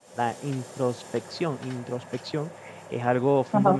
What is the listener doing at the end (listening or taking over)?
listening